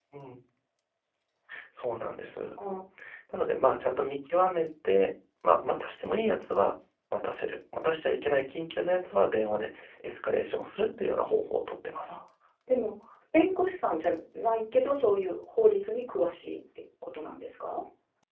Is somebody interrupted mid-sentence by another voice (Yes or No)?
No